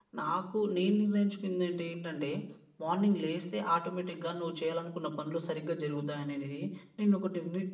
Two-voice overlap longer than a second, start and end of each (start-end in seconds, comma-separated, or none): none